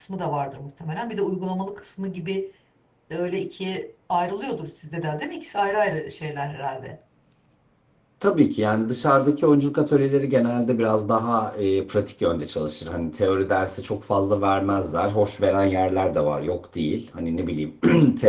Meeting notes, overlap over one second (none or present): none